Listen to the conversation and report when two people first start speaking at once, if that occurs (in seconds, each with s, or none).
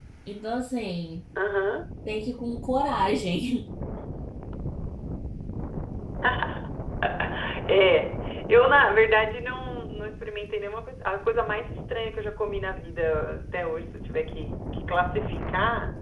none